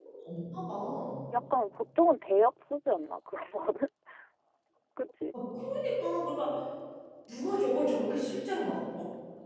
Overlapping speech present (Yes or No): No